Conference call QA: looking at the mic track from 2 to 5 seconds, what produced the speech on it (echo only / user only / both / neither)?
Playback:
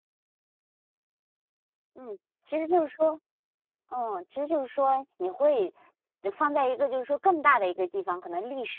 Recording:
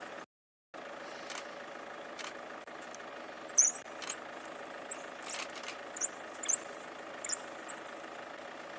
neither